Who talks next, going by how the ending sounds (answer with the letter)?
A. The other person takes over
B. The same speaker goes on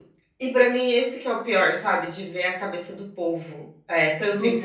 B